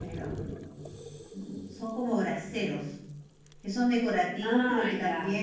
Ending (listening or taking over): listening